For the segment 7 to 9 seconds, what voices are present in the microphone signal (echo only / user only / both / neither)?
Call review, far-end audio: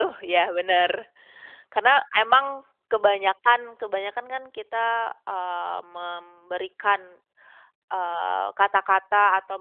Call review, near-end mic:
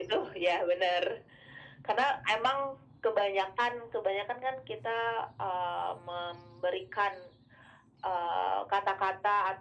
echo only